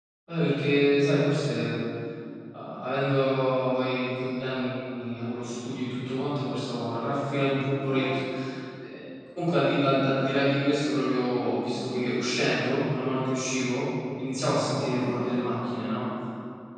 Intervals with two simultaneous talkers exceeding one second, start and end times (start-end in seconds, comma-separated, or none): none